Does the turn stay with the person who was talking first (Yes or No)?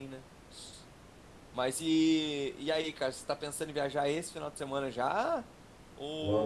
No